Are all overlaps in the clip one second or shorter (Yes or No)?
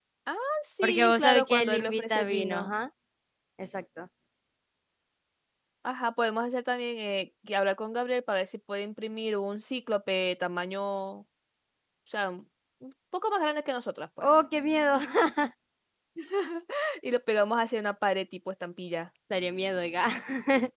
No